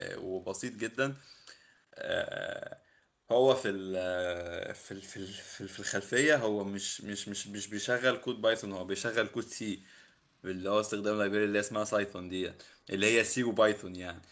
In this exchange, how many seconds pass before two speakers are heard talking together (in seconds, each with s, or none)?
none